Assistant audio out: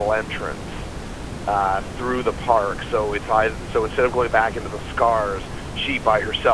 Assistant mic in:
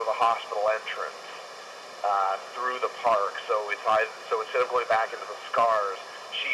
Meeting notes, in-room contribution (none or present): none